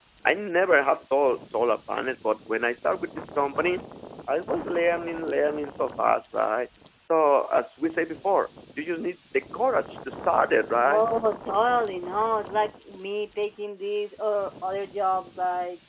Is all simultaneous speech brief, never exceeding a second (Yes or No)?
Yes